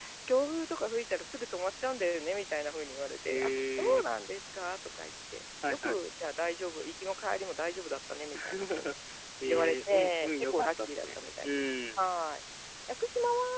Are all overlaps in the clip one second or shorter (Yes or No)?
No